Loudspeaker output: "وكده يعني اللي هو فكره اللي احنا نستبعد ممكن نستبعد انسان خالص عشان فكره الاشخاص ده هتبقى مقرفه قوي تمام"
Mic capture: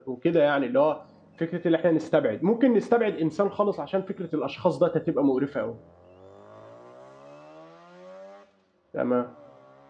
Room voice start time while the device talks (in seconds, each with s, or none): none